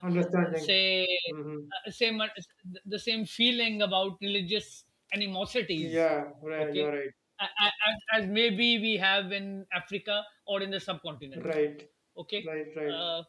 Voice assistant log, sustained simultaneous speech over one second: none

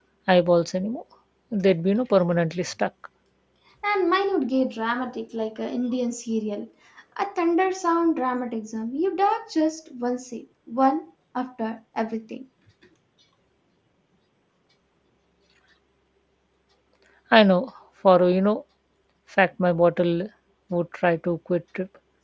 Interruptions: none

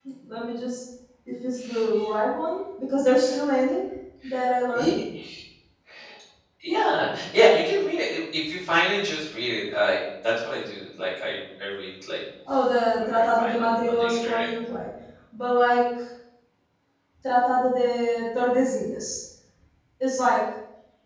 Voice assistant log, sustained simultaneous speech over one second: present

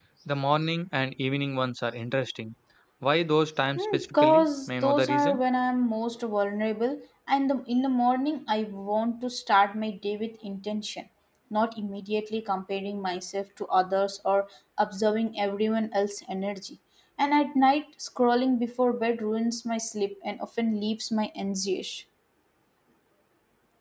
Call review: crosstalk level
present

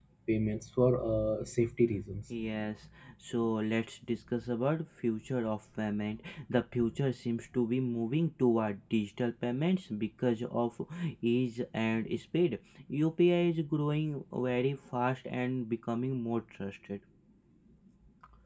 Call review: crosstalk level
none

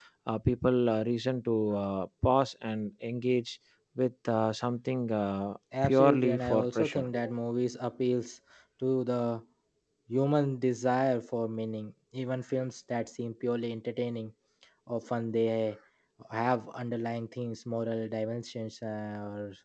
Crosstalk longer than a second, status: present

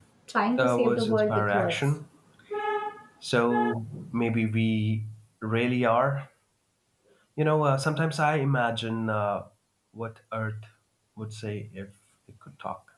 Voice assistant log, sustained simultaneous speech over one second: present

